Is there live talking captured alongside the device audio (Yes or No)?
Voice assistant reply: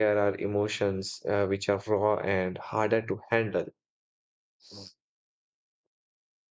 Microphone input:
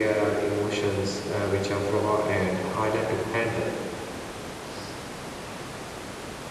No